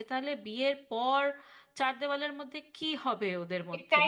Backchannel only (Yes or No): No